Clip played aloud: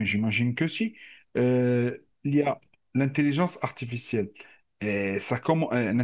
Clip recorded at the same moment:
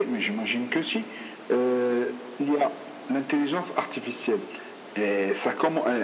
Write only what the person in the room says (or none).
none